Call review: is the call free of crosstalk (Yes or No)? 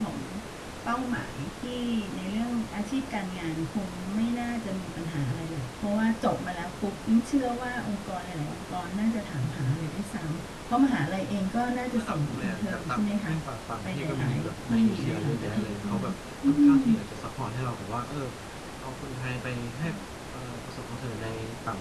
No